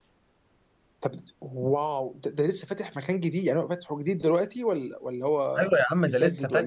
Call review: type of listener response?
taking over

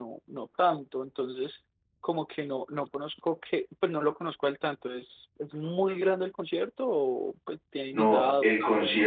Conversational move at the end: taking over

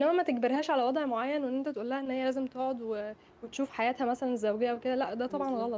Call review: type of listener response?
taking over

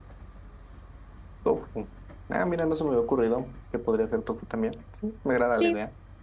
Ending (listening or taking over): taking over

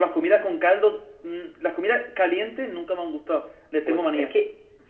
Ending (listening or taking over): taking over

